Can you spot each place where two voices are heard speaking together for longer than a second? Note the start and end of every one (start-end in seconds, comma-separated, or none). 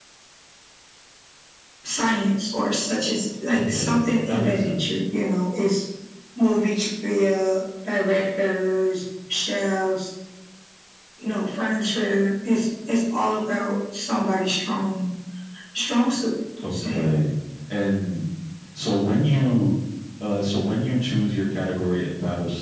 3.5-4.8